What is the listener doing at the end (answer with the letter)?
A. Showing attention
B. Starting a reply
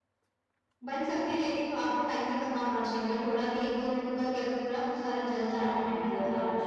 B